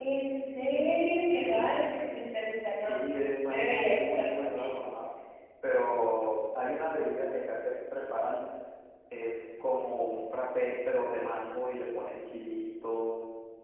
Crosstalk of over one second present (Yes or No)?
Yes